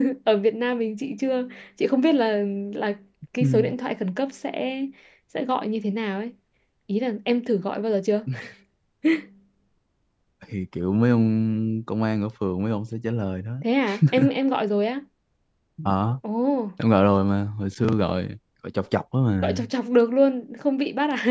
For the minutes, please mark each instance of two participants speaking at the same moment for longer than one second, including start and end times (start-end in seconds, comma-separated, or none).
none